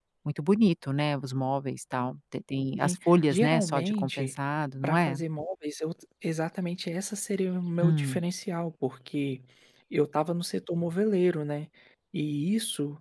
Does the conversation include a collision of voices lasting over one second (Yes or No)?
Yes